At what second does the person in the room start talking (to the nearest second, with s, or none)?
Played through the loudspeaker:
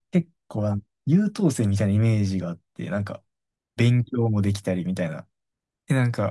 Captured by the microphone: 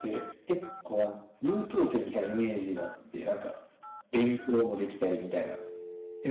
none